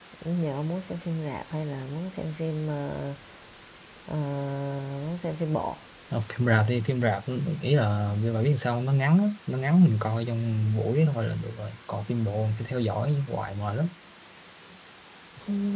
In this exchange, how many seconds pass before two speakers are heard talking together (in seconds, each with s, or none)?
none